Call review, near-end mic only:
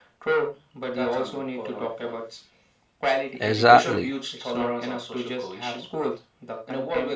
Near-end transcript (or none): Exactly.